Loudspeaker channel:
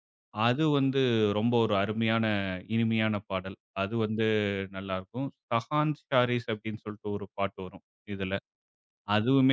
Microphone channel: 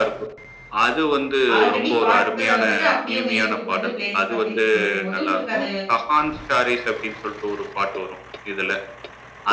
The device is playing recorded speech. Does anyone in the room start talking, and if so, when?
1.5 s

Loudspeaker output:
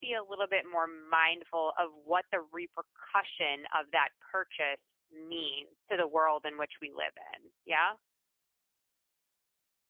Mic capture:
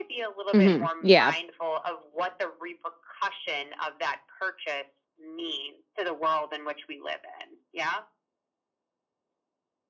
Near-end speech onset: 0.5 s

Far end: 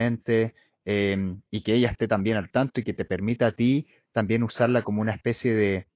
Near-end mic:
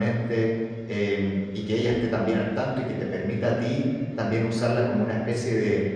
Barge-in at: none

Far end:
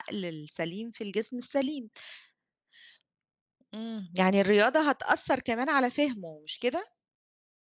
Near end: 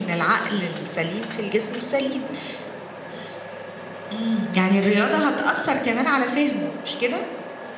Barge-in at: none

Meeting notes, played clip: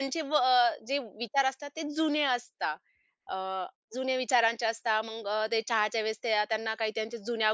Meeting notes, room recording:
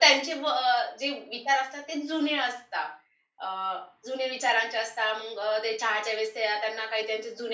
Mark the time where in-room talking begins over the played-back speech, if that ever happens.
none

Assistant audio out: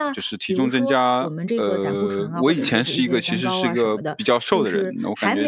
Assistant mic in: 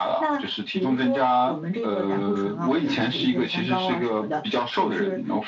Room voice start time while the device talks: none

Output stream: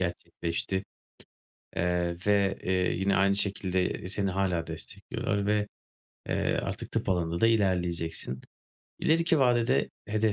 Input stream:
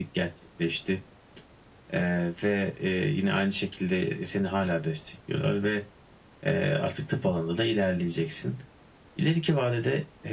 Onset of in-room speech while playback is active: none

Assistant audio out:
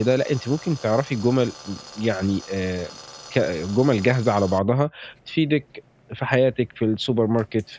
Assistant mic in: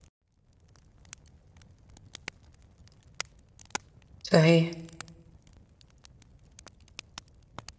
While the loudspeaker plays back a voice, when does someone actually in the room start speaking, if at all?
4.3 s

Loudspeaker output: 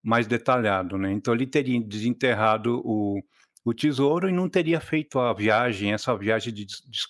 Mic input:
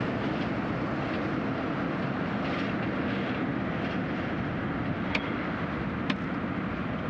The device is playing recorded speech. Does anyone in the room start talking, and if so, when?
none

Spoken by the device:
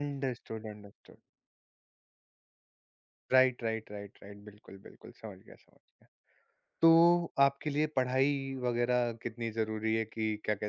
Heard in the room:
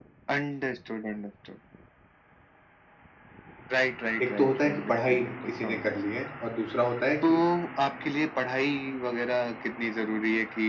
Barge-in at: 4.2 s

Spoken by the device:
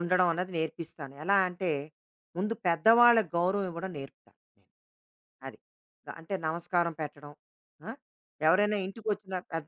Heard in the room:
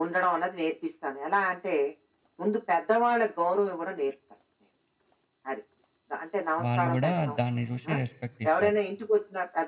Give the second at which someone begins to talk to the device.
6.6 s

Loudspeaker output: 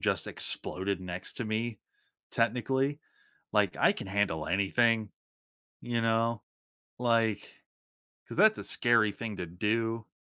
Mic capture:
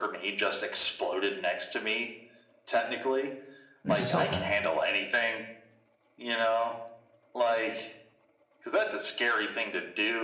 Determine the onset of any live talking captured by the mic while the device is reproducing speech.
3.9 s

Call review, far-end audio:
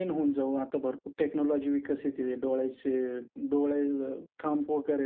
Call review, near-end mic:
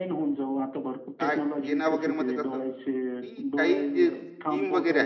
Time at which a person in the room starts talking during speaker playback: 1.2 s

